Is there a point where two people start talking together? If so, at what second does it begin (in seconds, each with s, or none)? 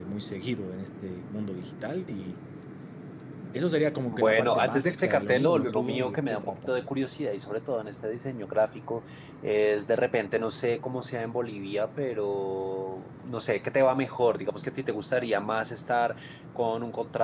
4.1 s